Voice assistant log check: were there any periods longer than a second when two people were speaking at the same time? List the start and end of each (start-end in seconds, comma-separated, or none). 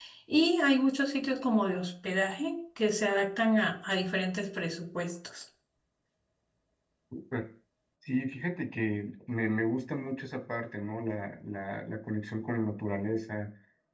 none